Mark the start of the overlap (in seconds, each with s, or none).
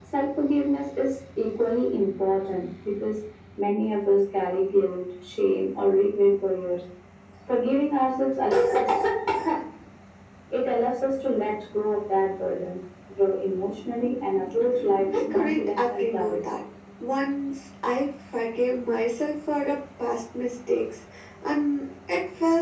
15.1 s